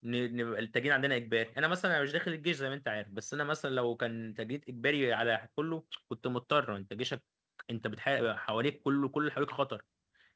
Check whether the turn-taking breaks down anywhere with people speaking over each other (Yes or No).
No